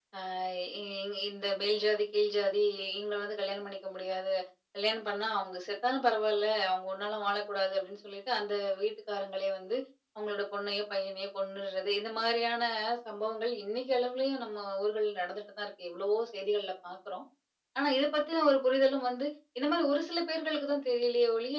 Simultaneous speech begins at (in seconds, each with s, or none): none